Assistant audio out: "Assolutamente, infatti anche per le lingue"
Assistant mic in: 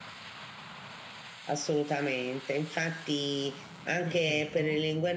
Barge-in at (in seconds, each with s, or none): 4.1 s